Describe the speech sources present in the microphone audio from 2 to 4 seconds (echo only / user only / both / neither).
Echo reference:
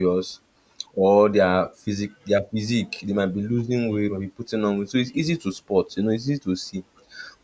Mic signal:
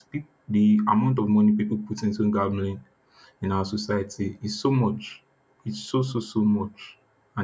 user only